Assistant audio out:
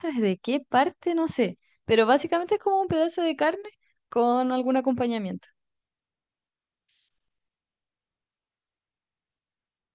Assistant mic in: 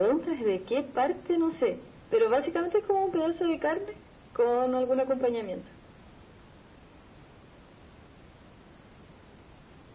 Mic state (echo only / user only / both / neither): echo only